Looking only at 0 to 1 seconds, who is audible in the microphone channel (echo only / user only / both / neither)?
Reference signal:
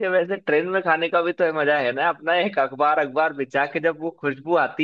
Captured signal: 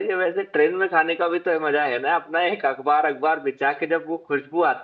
echo only